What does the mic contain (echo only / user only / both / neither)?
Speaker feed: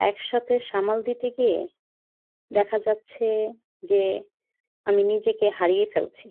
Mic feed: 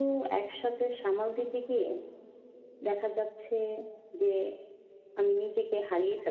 echo only